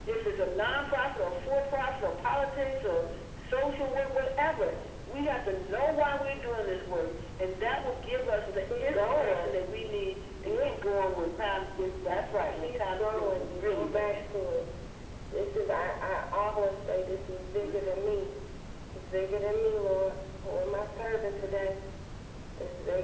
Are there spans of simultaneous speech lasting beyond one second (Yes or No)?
Yes